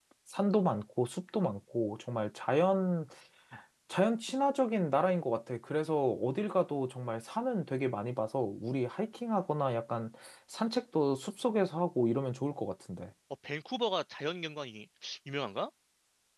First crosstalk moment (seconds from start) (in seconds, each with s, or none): none